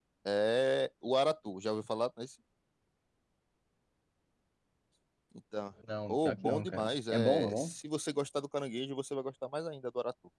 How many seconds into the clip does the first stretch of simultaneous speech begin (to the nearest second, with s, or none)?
6 s